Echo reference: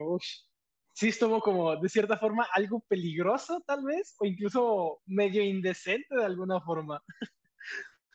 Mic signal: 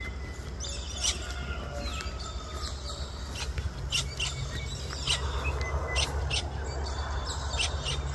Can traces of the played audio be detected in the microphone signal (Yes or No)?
No